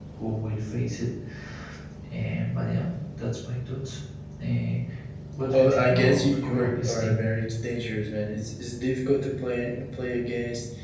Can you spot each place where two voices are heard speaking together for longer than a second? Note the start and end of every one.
5.5-7.2

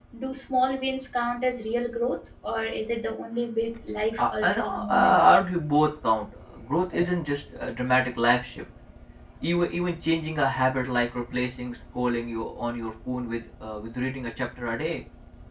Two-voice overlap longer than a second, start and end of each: 4.2-5.4

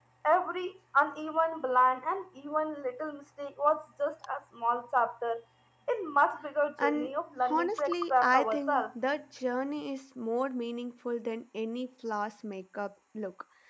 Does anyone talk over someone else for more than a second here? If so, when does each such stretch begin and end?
7.5-8.9

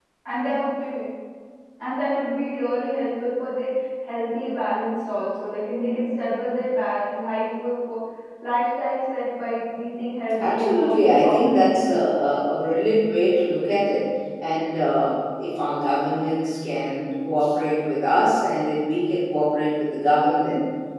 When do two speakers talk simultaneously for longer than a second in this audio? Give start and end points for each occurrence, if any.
10.4-11.8

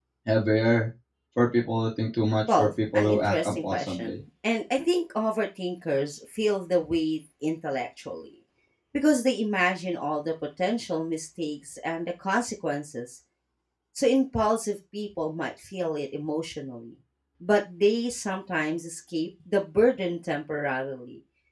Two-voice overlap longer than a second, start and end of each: 2.5-4.2

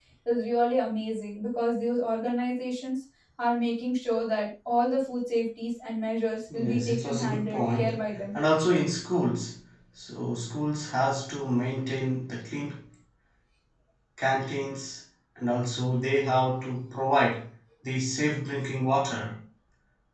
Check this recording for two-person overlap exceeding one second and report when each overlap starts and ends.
6.5-8.3

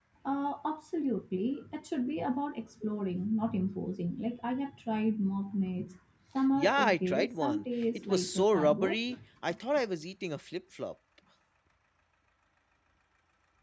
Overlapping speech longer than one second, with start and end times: 6.5-9.2

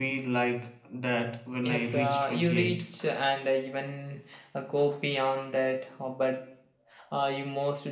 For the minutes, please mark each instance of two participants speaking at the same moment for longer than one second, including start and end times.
1.6-2.8

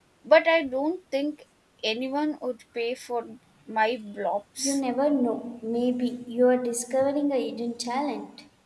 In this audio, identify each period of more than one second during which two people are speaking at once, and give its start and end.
none

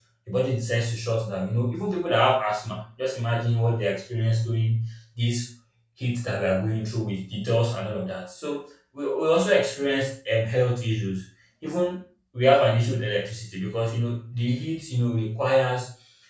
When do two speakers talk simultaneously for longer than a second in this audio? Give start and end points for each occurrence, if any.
none

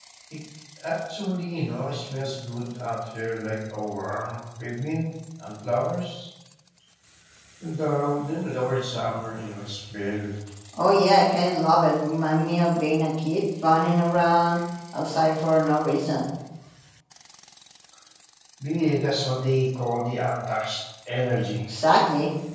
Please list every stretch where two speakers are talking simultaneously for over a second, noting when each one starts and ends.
none

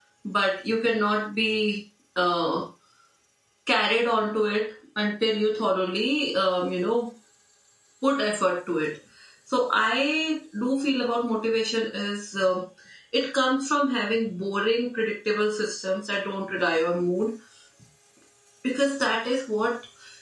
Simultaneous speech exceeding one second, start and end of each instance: none

